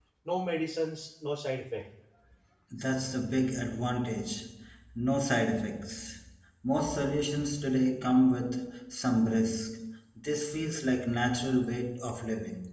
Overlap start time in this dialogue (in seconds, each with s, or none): none